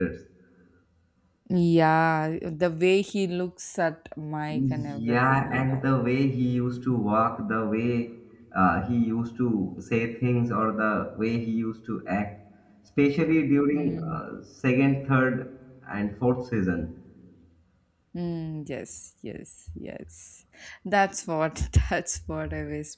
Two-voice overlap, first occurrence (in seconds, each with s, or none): 4.5 s